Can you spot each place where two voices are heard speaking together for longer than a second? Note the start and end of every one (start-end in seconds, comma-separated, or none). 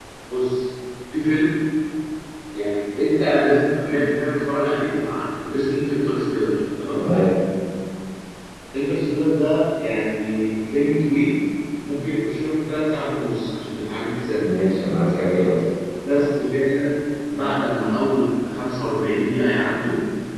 none